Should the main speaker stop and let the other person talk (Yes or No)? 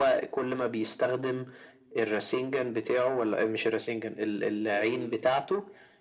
No